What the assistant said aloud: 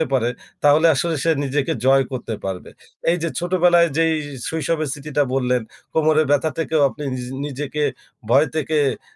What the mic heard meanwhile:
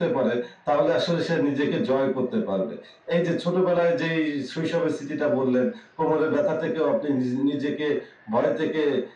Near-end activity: none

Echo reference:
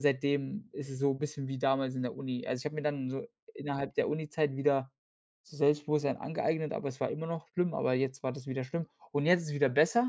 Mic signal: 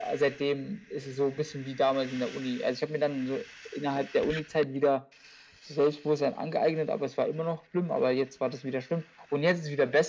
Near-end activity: none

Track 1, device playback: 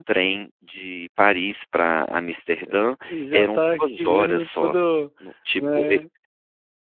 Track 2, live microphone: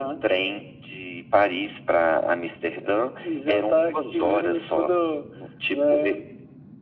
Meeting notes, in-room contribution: none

